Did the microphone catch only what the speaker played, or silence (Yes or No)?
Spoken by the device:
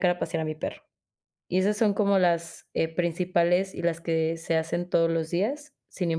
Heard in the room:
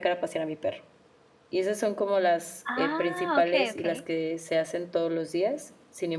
No